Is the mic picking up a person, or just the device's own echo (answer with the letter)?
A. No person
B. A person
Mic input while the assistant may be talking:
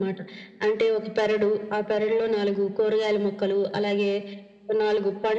A